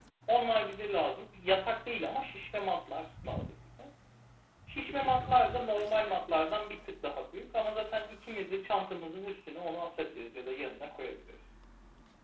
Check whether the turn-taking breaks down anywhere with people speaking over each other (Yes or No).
Yes